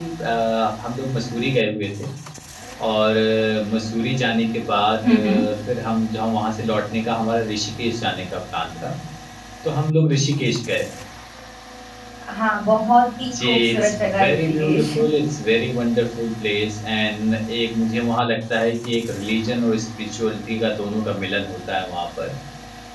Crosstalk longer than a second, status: present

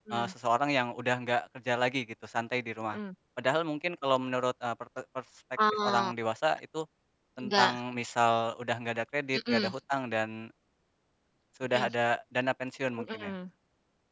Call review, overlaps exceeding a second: none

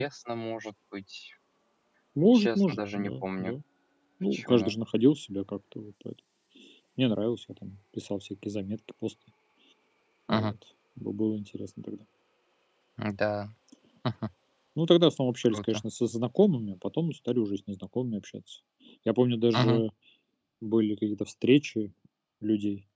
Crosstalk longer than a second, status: present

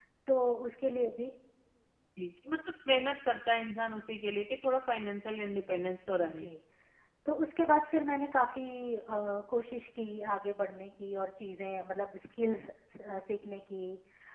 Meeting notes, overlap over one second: none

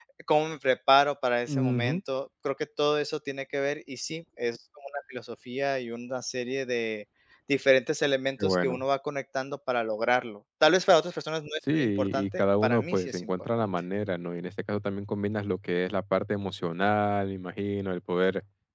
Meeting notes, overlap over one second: present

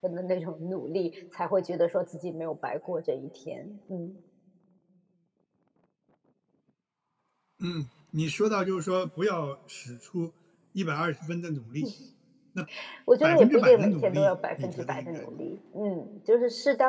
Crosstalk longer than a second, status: present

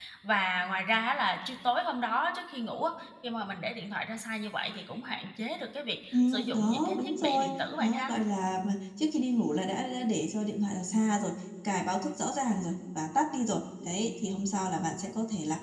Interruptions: present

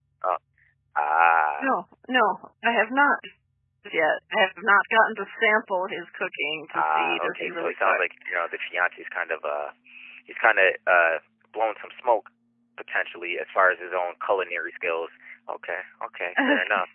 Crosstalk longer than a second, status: present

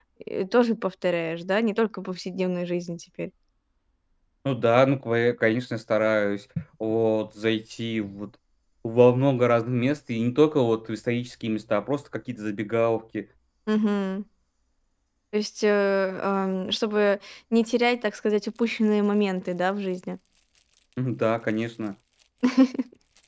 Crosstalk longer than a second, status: none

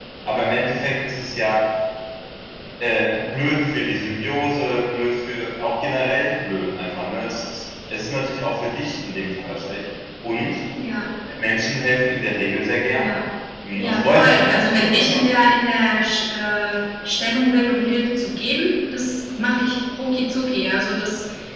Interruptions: present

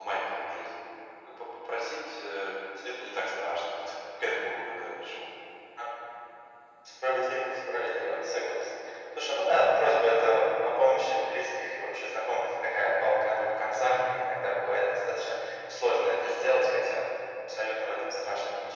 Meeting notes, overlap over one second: none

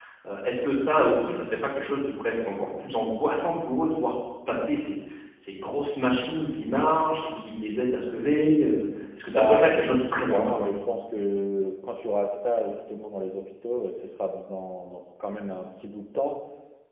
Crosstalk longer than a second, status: present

